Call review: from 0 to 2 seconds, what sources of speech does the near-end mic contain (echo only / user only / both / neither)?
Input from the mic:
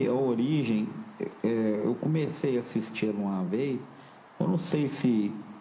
echo only